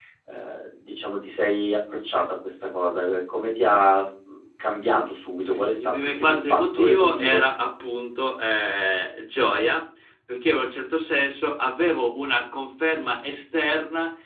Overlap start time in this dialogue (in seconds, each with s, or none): 5.8 s